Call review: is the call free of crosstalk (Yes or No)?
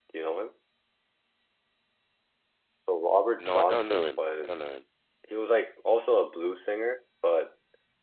No